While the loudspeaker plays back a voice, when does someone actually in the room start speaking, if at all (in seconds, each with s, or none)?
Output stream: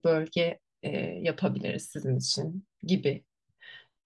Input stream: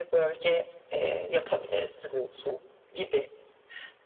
none